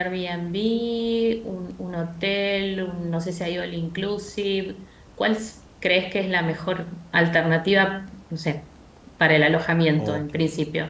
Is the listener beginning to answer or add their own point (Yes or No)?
Yes